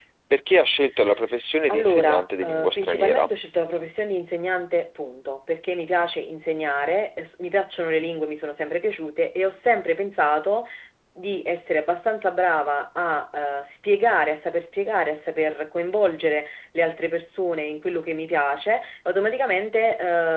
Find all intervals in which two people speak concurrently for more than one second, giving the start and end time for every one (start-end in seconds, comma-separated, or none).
1.7-3.3